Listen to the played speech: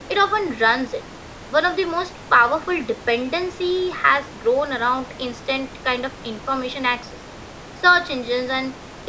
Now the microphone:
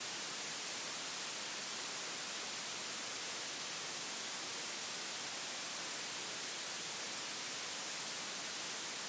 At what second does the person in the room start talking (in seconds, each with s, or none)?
none